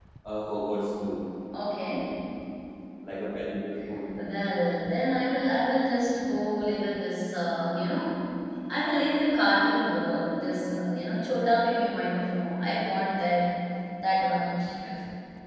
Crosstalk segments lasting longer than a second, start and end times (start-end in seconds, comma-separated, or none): none